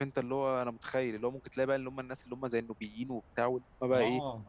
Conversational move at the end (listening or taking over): taking over